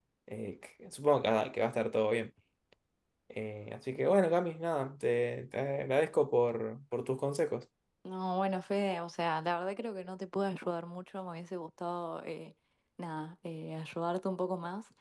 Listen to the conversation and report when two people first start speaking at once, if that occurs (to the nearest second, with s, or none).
none